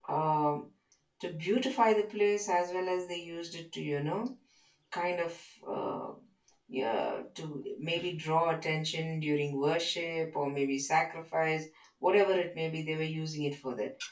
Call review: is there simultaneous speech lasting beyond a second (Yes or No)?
No